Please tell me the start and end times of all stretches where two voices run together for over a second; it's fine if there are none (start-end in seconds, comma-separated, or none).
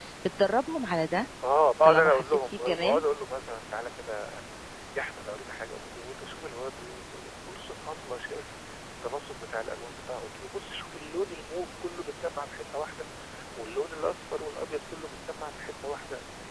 1.8-3.0